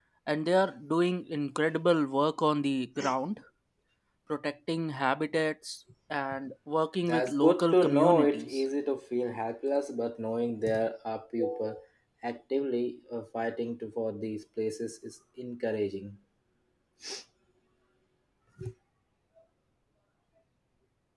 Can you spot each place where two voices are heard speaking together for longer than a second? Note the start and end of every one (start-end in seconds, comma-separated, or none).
7.1-8.6